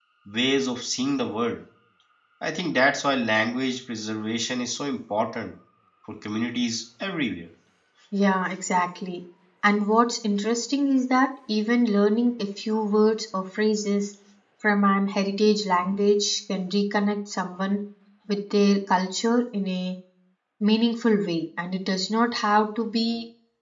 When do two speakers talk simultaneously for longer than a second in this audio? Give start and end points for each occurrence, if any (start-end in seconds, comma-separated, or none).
none